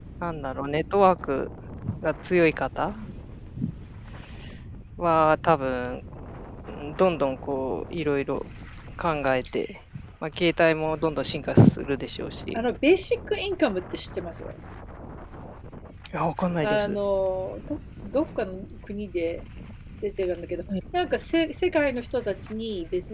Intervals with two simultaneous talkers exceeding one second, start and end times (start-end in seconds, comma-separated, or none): none